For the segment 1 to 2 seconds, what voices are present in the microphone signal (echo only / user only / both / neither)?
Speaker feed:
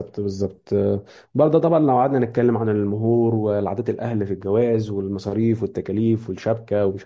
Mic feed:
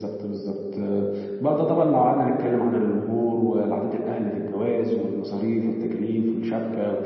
echo only